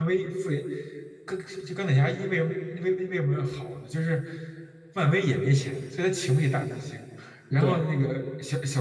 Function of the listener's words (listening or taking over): listening